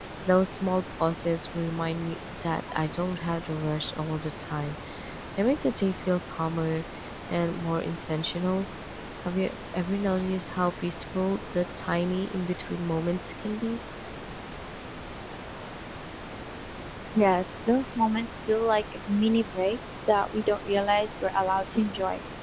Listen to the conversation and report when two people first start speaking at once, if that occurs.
none

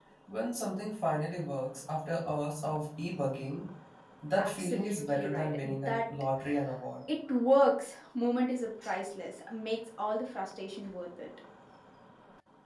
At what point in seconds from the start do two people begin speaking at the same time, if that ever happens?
4 s

